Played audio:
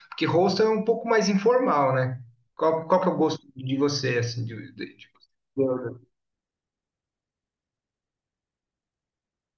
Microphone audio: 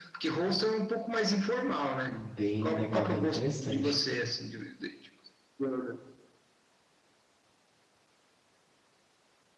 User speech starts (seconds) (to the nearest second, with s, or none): 2 s